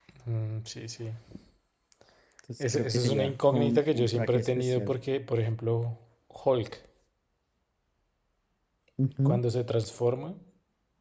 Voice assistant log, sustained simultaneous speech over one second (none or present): present